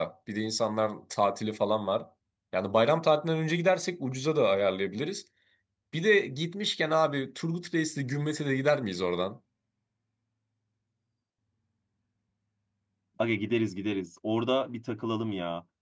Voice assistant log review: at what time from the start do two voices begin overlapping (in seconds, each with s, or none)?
none